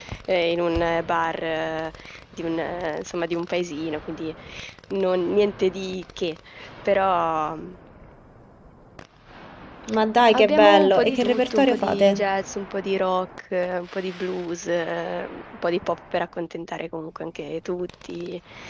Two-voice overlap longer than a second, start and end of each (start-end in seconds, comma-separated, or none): 10.3-12.2